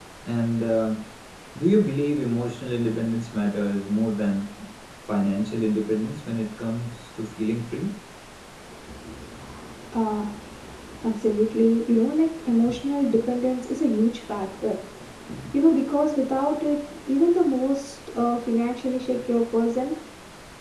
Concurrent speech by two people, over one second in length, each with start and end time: none

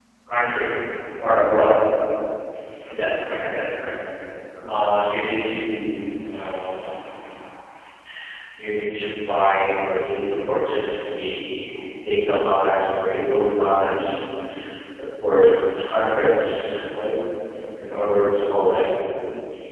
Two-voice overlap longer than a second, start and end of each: none

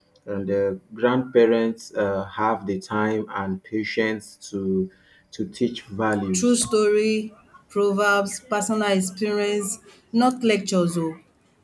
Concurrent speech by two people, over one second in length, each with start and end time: none

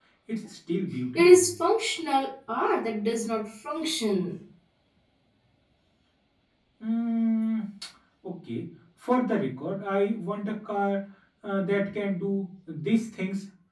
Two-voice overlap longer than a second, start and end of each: none

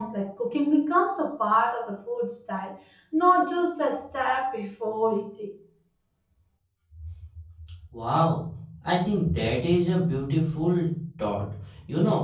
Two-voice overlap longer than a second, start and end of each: none

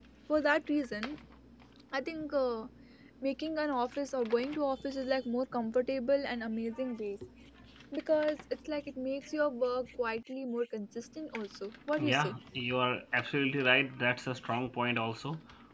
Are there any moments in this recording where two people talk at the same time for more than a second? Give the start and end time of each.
none

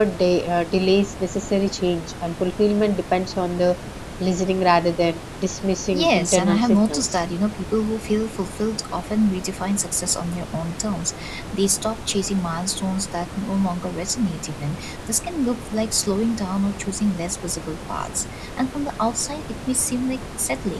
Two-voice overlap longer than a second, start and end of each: 5.9-7.2

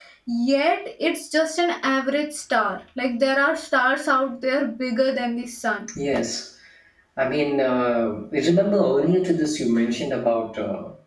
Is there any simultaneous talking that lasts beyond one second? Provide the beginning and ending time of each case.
none

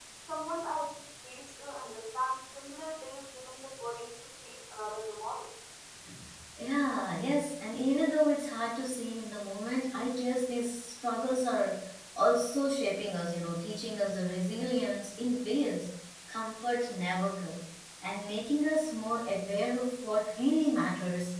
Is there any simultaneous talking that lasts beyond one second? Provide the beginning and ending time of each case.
none

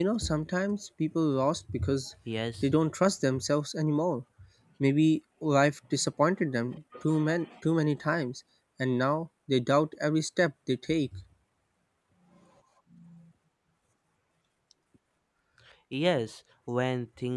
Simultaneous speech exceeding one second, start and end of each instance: none

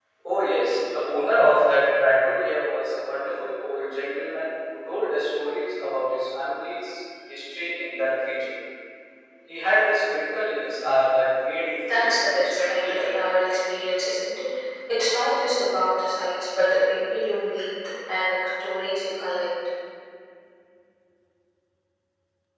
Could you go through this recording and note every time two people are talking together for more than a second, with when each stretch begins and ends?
11.9-13.3

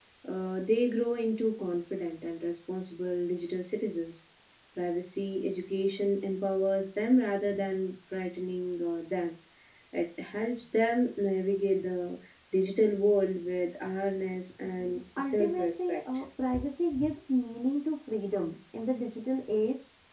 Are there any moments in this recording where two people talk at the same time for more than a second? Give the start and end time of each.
14.6-16.0

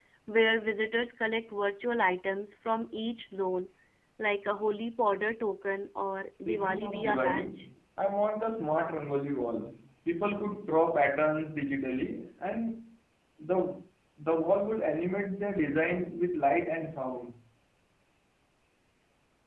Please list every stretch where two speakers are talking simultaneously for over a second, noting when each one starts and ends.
6.4-7.7

